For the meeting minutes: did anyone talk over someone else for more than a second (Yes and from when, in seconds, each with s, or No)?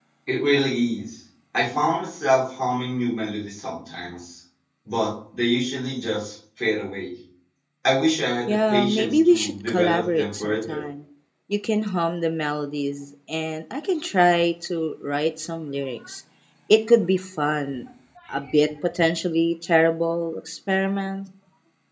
Yes, from 8.5 s